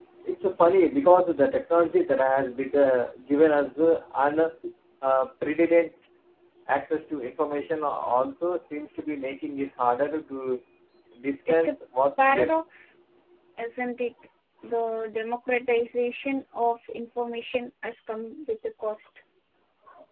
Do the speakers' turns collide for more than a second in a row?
No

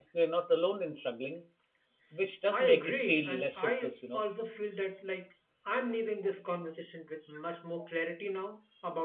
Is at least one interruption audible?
Yes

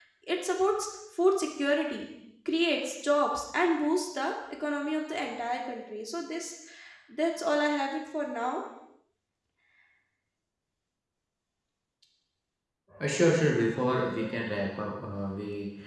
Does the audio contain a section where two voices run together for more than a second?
No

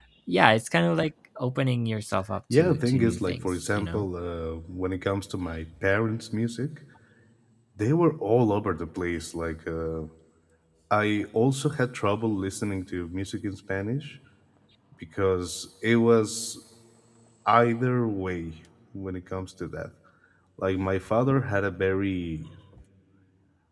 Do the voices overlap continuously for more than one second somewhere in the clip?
Yes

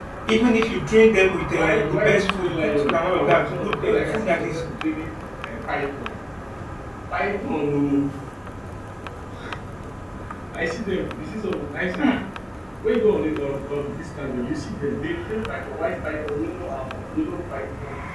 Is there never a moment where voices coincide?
No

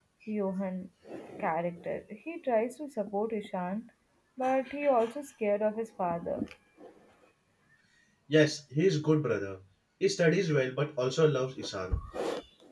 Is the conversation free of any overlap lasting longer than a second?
Yes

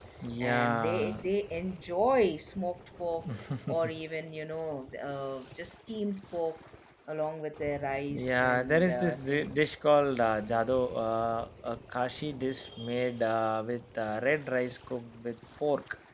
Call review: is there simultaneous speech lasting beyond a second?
Yes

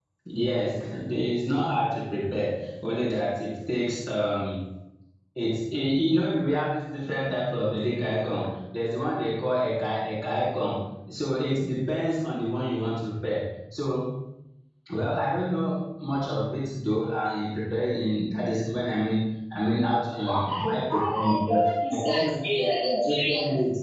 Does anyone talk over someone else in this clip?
Yes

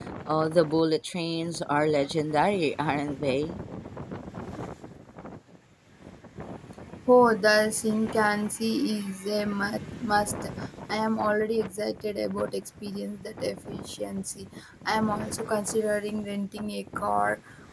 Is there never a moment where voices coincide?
Yes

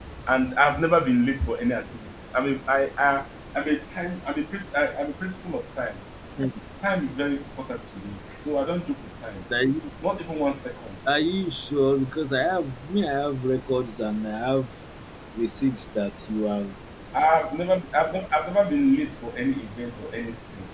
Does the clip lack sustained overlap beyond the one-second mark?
Yes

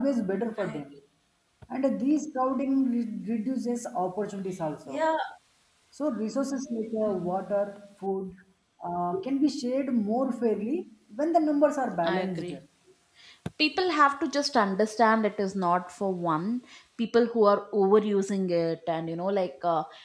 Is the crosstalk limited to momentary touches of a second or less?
Yes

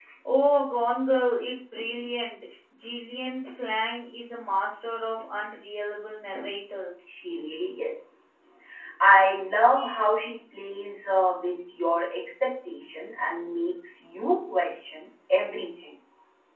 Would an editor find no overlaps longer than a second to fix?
Yes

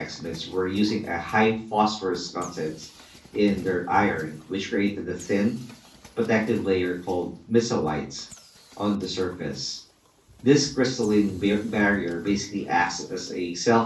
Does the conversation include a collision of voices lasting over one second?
No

